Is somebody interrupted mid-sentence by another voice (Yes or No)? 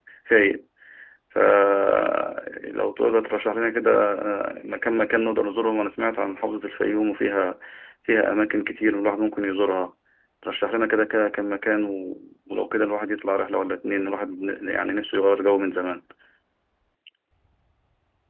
No